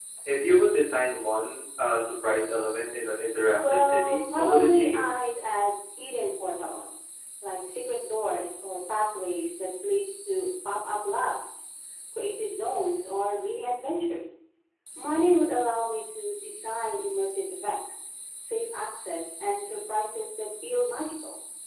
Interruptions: present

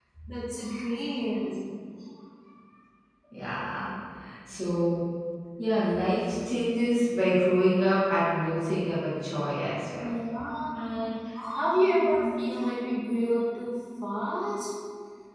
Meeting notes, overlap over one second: none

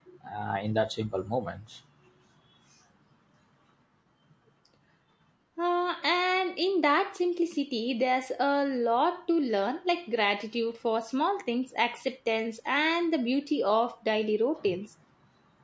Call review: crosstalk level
none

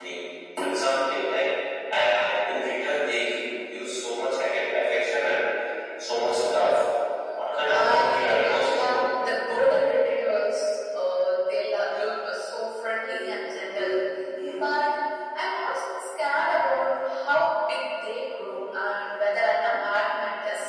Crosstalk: present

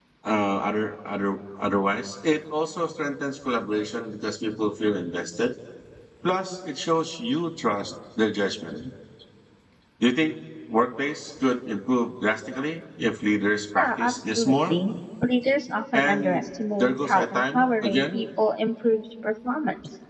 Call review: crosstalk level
present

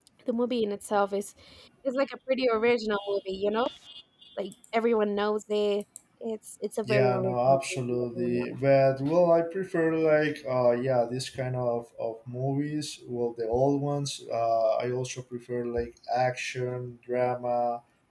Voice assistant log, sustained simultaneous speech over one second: present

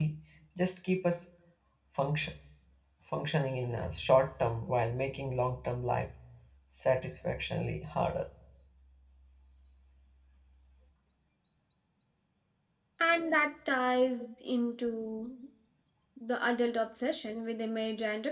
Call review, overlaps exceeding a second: none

